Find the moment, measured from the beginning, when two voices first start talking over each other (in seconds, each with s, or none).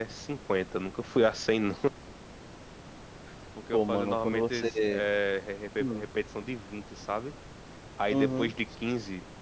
3.7 s